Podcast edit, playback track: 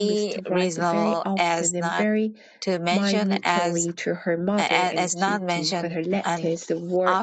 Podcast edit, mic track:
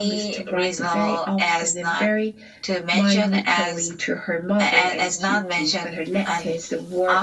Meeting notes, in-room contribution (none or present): none